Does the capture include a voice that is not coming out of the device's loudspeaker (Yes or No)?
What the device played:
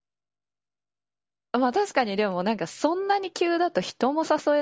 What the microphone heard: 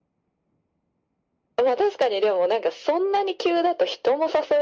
No